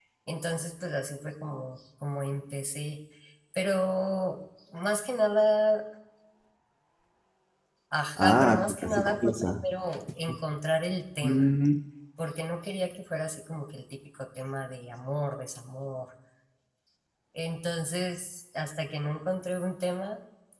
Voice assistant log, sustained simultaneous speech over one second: present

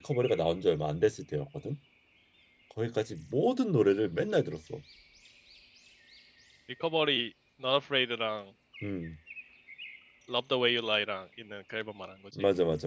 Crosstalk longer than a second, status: none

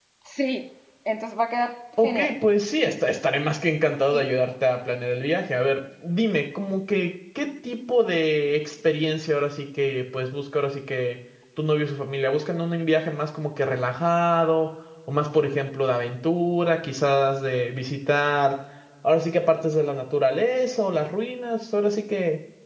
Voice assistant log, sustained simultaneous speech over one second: none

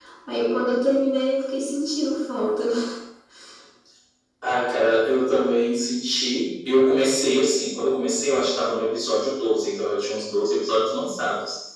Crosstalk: none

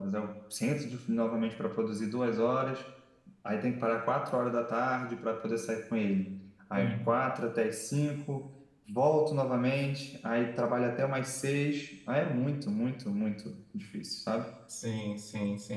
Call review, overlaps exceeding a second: none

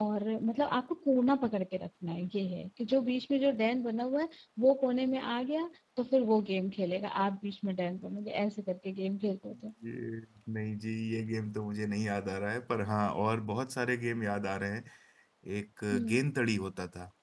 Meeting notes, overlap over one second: none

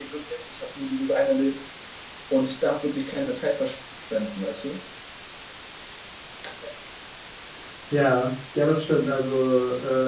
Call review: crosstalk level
none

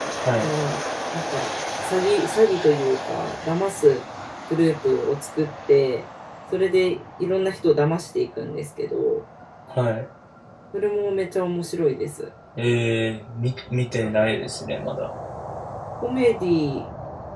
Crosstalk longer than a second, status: none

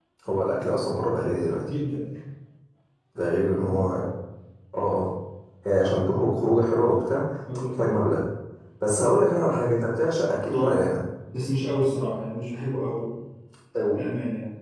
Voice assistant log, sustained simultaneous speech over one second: none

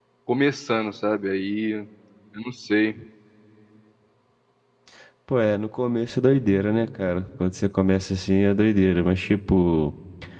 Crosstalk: none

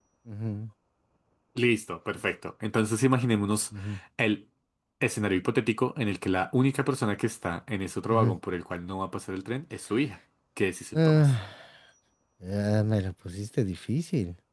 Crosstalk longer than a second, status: none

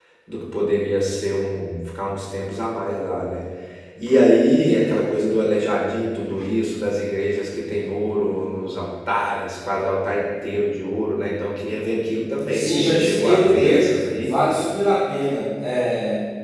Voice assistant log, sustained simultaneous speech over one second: present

